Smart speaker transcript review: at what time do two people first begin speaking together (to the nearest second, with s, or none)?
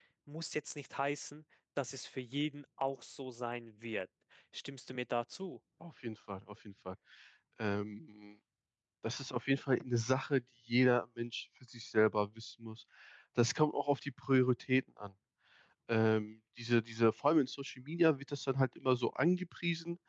none